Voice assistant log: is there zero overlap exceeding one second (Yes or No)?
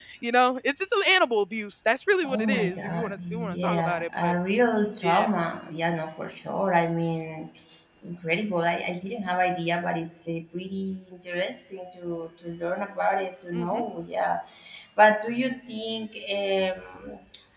No